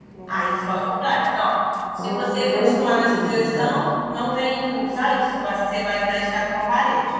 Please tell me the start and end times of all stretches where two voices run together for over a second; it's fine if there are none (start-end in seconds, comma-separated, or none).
2.0-3.8